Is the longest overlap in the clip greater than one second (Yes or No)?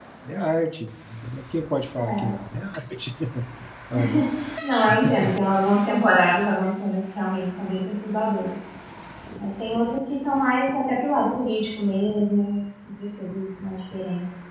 No